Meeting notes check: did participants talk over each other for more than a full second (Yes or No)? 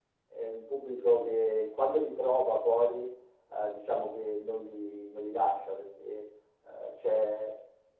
No